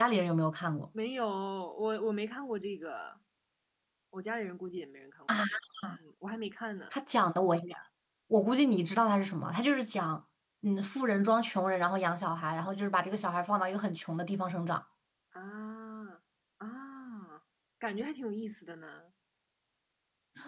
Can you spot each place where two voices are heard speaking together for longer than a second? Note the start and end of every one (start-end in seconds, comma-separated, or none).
none